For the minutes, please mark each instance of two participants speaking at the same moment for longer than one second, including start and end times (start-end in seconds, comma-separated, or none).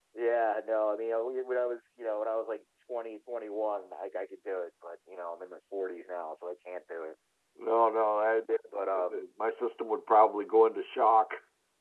none